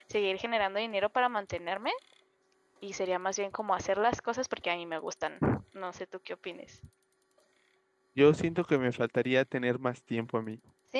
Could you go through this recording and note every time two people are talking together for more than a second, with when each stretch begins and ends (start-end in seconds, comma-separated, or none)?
none